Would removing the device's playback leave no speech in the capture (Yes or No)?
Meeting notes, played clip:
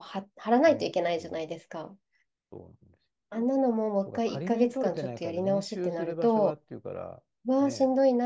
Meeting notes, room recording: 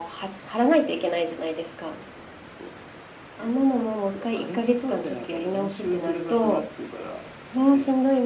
Yes